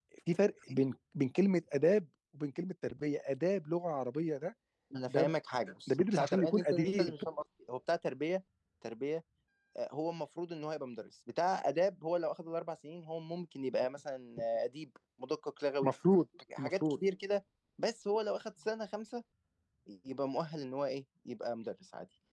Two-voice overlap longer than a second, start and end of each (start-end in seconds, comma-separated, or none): 5.9-7.1